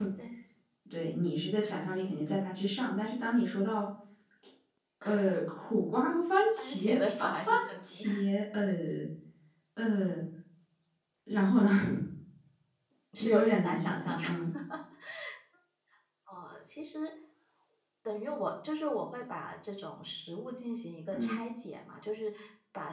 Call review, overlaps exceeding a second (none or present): present